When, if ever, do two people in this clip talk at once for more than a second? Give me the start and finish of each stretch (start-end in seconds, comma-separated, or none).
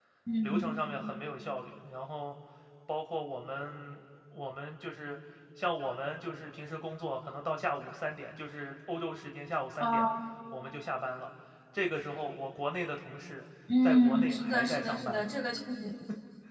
13.8-15.3